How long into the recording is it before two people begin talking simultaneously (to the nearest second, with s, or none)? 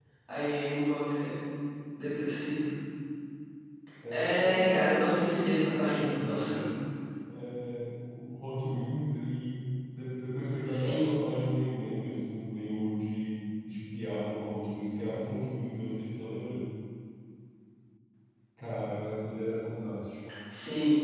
4 s